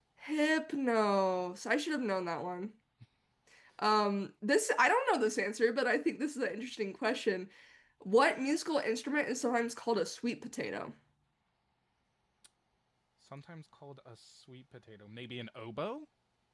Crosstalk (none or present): none